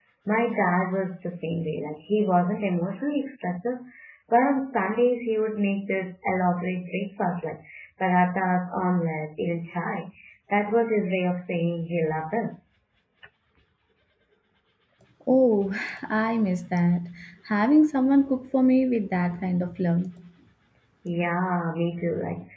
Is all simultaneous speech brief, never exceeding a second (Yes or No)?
Yes